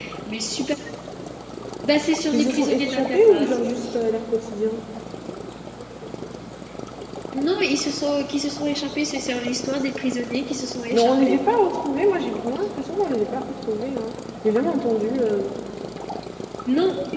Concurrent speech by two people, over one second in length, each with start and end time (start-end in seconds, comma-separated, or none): 2.3-3.6